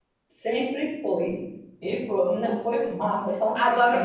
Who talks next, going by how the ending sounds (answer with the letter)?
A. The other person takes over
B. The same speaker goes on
A